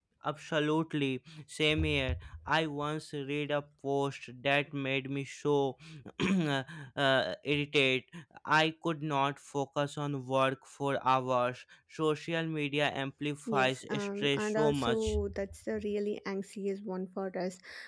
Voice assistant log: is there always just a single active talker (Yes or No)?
No